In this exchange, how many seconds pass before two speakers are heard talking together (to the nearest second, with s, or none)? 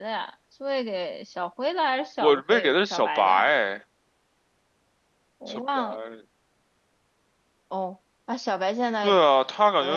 2 s